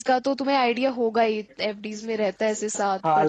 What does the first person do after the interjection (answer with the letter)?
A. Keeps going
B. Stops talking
B